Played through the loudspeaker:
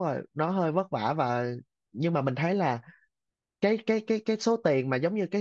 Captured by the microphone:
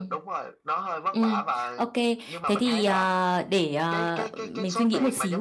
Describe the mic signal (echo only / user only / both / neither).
both